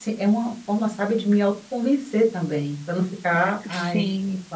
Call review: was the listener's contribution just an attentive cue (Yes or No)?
Yes